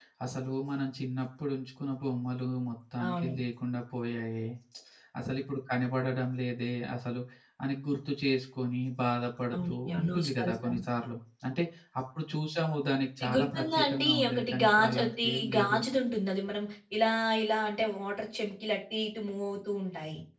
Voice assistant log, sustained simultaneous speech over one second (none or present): present